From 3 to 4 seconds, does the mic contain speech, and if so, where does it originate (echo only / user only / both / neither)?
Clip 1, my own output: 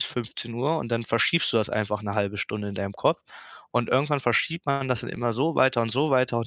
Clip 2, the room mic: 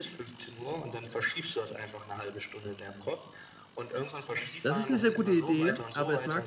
echo only